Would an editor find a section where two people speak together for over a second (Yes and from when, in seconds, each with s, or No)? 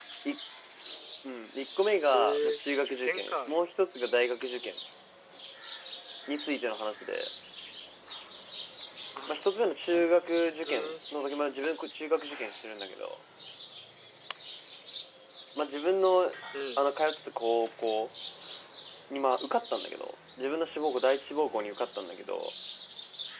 Yes, from 2.1 s